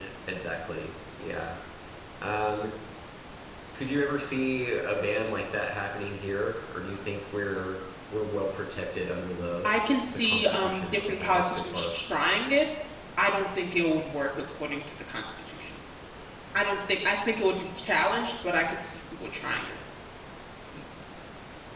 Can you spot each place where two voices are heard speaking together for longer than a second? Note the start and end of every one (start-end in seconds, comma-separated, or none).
10.1-11.9